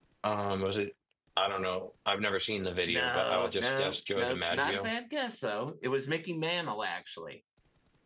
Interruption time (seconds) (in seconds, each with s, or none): 2.9 s